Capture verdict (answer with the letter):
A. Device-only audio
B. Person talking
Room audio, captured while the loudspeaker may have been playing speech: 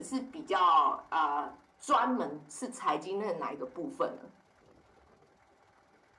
A